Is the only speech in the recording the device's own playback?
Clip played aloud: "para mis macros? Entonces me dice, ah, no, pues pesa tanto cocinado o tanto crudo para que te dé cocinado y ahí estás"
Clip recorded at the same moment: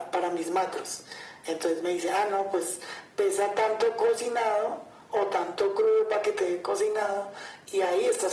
Yes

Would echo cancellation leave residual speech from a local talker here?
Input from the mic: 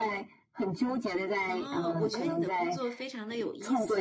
Yes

